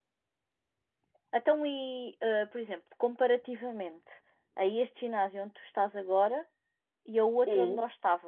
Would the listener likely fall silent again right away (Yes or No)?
Yes